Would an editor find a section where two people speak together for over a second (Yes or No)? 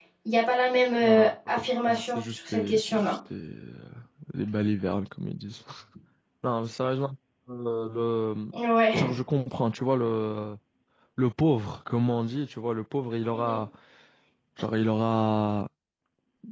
Yes